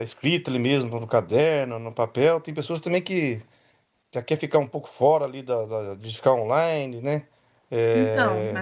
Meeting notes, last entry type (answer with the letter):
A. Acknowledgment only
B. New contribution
A